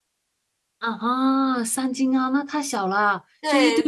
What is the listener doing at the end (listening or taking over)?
taking over